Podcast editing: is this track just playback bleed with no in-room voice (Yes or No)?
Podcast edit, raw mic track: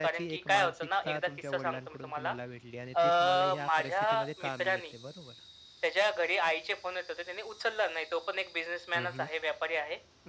No